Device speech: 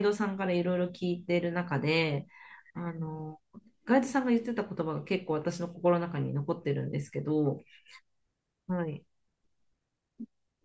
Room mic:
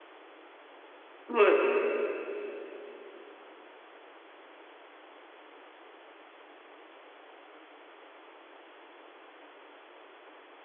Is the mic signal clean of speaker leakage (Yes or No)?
Yes